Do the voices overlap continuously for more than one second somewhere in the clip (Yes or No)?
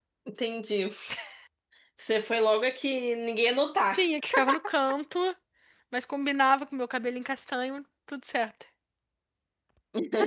No